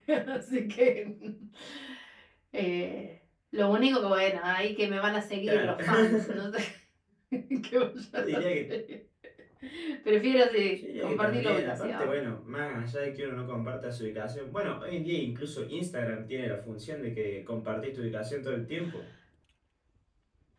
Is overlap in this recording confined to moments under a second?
No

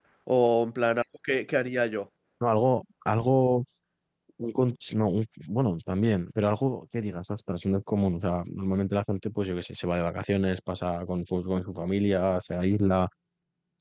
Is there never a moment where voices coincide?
Yes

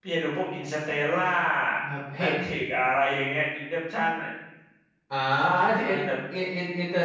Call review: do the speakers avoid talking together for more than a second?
Yes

